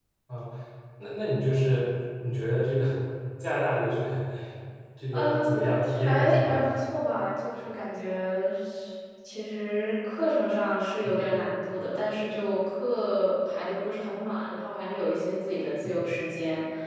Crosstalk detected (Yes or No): Yes